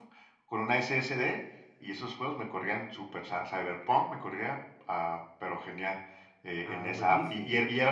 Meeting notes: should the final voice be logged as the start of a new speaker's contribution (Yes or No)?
No